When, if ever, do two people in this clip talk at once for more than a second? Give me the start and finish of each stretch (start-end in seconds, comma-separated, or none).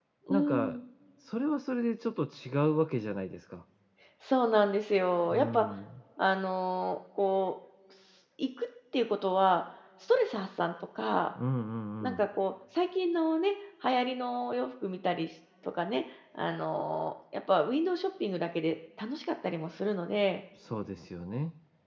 none